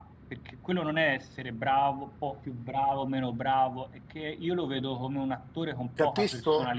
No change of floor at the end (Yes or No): No